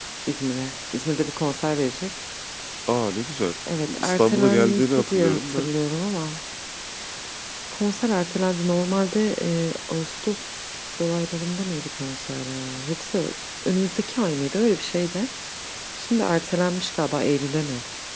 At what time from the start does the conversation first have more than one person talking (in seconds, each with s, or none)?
3.7 s